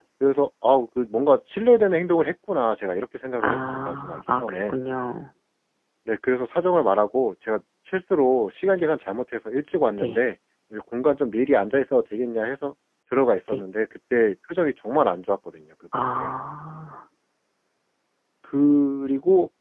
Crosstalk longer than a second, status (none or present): present